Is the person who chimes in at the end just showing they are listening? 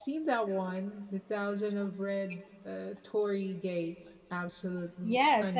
No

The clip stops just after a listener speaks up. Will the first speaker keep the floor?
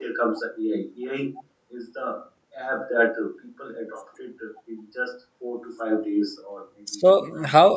No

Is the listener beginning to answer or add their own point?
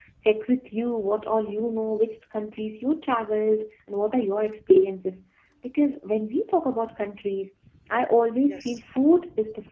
No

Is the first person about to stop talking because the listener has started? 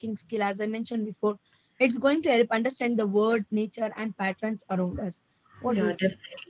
Yes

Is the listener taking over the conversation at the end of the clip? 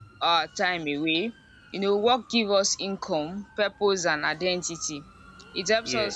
No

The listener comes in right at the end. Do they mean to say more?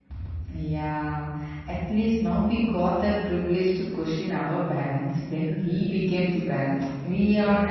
No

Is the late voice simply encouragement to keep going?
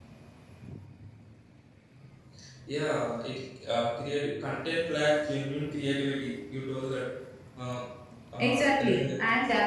No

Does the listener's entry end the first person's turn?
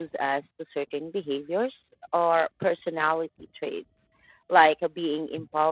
No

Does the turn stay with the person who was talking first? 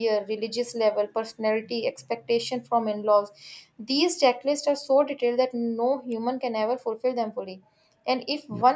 Yes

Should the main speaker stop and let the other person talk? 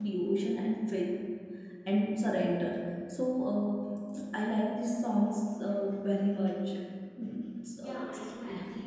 Yes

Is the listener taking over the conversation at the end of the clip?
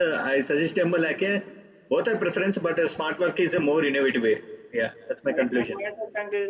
Yes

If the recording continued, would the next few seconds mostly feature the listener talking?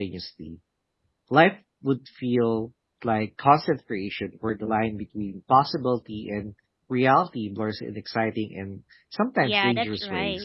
Yes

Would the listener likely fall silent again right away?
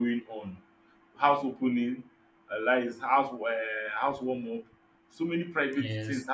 Yes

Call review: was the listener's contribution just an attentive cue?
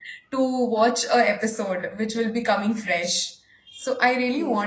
No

